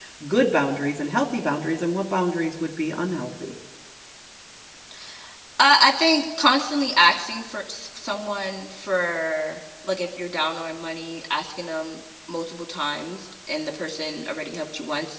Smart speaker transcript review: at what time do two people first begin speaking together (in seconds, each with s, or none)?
none